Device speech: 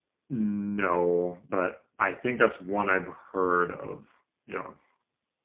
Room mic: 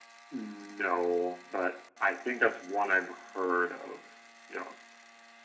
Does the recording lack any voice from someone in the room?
Yes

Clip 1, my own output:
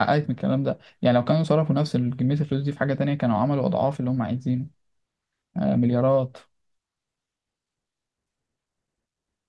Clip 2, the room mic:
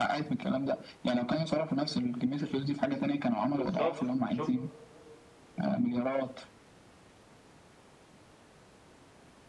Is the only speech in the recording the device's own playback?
No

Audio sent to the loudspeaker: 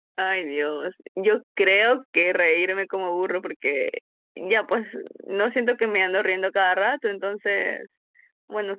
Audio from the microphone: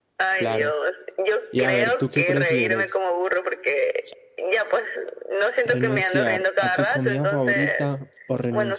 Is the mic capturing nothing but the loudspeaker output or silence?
No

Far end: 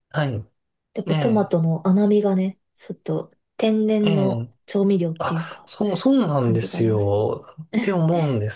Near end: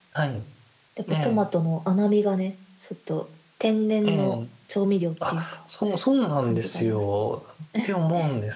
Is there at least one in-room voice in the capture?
No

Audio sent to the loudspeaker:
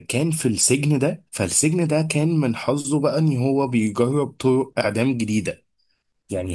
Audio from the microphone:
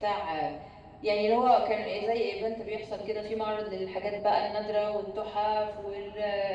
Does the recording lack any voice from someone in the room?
No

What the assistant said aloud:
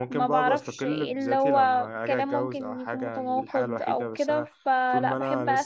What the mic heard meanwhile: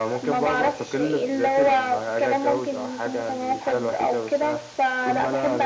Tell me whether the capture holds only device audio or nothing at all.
Yes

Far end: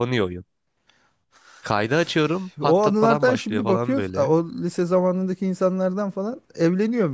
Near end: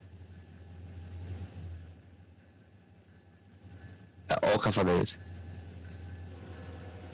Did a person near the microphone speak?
Yes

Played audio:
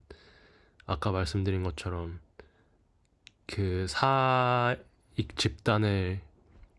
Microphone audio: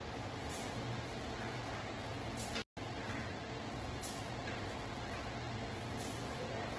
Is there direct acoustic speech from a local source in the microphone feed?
No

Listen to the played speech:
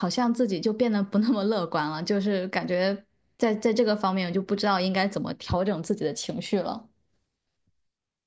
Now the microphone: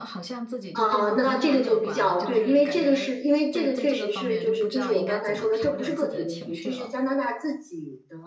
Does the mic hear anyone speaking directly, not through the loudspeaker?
Yes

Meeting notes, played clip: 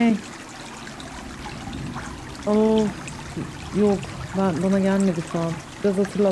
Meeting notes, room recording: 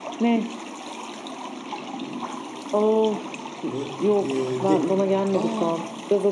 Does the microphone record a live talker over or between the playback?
Yes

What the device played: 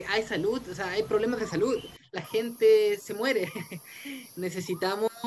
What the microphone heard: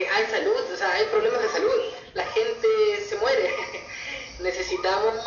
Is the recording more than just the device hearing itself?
No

